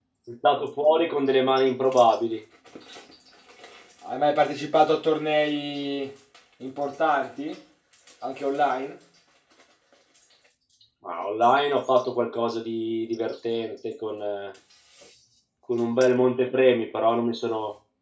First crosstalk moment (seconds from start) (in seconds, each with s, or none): none